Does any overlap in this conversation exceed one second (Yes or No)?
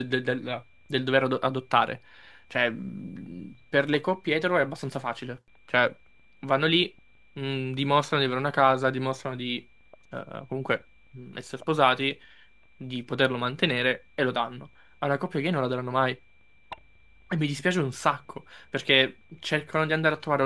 No